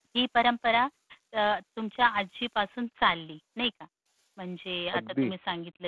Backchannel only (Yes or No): Yes